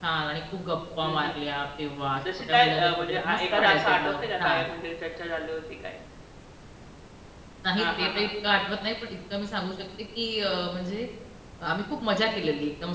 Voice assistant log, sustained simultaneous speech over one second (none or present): present